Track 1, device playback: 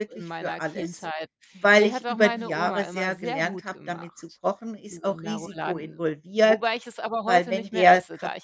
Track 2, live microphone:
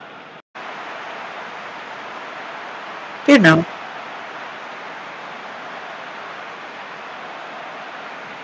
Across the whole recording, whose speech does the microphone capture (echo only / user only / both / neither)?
user only